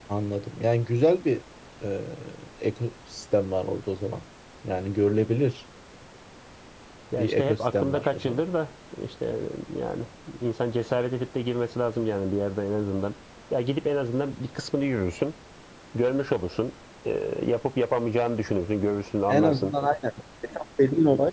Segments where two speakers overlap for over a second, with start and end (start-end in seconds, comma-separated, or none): 7.2-8.4